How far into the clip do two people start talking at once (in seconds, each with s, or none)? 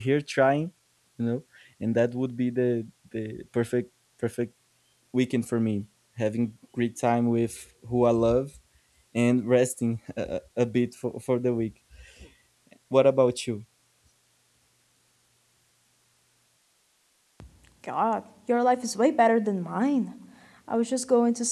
none